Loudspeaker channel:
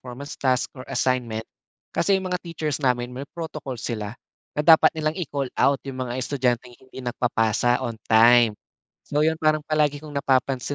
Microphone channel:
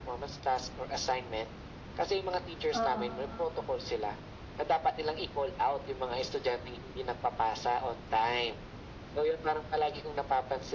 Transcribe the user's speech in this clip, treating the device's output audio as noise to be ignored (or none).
Oo.